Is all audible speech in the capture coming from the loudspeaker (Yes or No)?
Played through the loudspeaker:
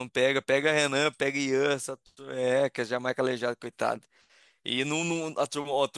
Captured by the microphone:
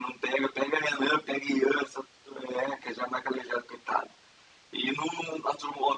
Yes